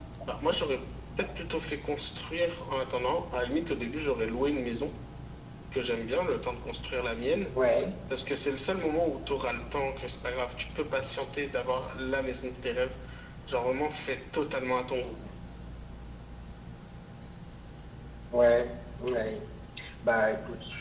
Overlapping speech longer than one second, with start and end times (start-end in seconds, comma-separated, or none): none